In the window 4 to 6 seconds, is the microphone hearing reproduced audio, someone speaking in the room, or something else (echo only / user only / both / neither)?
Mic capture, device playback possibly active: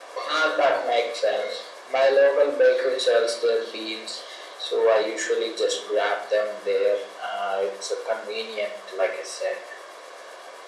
echo only